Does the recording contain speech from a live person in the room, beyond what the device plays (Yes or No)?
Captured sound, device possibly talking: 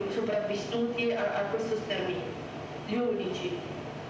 No